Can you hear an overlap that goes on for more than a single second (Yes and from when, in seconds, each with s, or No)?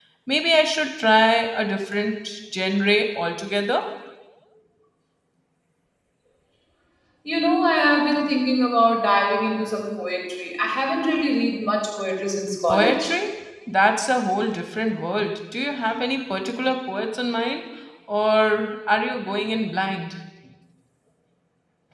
No